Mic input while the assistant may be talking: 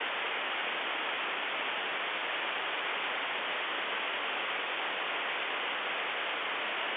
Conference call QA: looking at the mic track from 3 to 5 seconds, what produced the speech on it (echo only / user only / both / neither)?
neither